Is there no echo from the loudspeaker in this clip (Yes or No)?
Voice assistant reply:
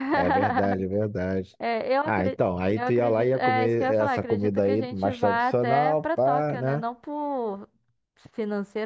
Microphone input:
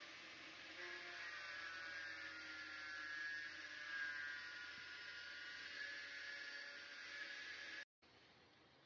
Yes